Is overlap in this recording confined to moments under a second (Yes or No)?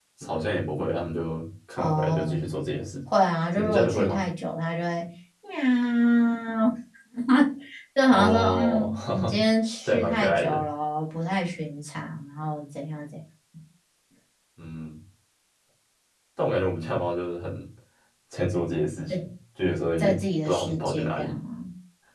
No